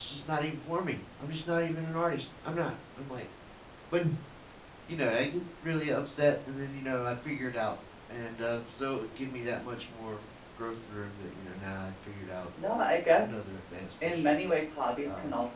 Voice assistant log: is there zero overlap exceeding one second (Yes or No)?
Yes